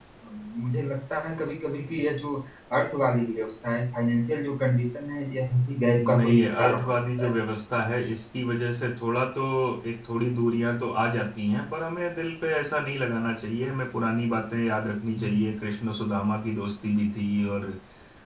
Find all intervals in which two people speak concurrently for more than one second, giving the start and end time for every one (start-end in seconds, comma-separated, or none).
6.0-7.3